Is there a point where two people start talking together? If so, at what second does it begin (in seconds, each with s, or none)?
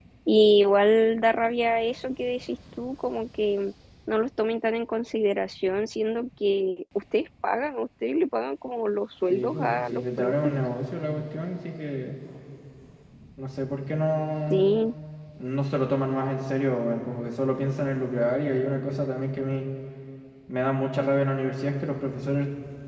9.3 s